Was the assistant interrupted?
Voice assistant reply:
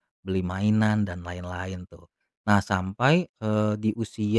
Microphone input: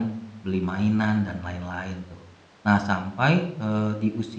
No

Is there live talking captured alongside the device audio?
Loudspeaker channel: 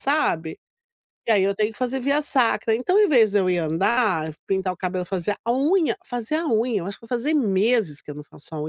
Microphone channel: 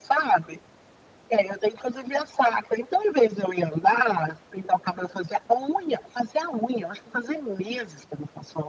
No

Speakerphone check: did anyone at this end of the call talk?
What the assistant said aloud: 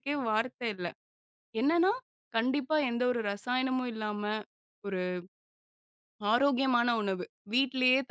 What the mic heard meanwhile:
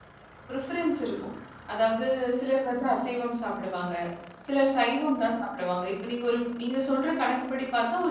Yes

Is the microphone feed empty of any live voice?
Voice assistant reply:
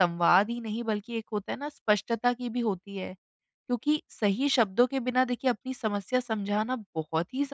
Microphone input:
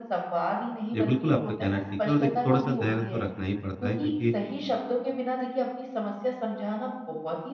No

